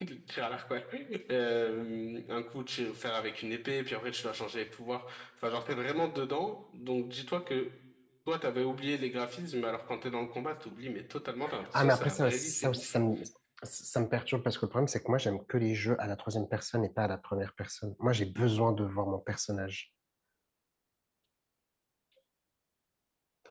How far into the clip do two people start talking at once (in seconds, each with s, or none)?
11.7 s